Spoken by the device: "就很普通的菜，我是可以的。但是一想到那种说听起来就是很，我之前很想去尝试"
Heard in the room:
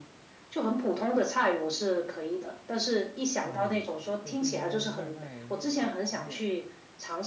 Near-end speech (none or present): present